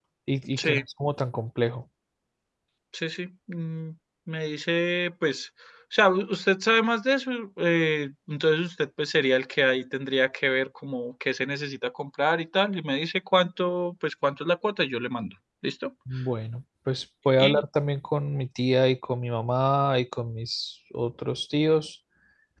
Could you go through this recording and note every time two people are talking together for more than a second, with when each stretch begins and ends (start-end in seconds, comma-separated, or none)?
none